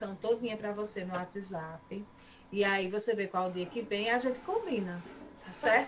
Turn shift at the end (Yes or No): Yes